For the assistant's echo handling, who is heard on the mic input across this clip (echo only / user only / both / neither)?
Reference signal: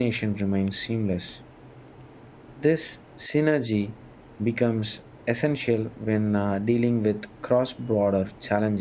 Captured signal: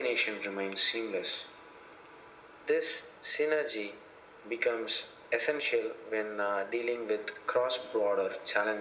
echo only